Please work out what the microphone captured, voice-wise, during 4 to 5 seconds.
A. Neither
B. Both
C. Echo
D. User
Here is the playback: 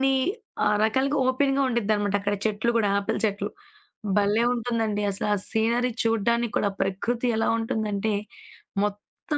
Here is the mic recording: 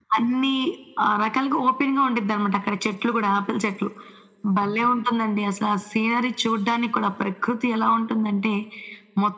C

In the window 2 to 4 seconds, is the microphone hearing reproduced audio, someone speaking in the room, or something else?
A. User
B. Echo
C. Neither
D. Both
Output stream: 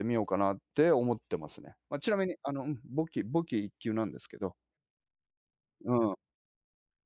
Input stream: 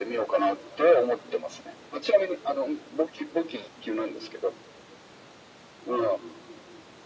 B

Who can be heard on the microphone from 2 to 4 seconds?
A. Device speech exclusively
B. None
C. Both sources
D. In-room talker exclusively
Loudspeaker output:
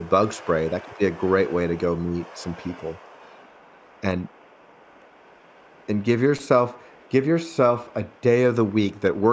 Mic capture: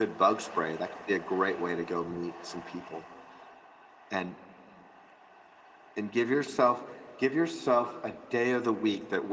A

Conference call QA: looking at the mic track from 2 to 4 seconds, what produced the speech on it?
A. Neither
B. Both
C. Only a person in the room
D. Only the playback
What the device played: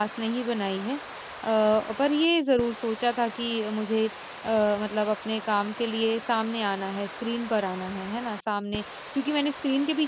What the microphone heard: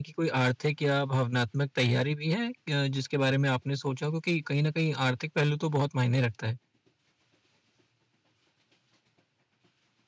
C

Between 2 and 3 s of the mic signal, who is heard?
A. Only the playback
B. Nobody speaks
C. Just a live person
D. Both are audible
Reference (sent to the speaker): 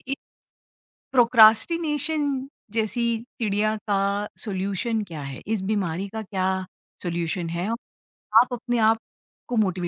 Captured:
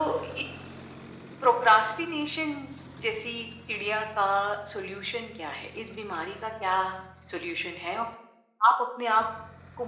A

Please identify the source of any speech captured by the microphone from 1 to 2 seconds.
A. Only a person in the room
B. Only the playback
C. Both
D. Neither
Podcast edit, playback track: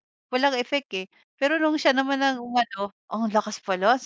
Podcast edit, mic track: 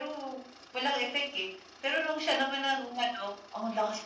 B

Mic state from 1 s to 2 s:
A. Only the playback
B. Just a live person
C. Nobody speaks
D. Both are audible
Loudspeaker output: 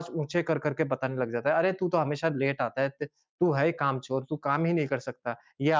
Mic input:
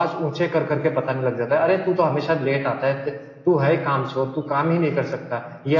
A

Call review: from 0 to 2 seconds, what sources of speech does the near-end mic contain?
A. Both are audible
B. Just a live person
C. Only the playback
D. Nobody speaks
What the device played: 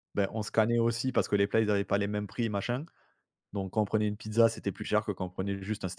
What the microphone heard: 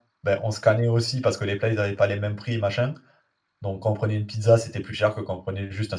C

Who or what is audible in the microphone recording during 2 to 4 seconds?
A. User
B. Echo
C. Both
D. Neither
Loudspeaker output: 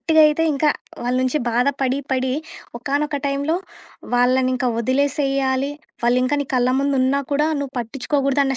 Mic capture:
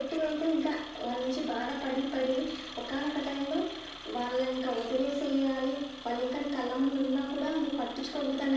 B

